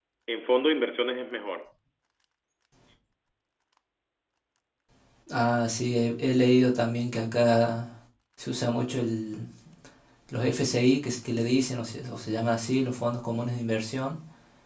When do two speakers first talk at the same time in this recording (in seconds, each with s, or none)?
none